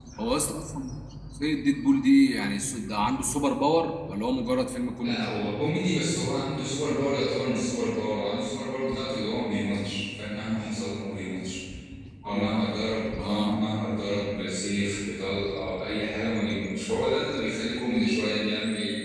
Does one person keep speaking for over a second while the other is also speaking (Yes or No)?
No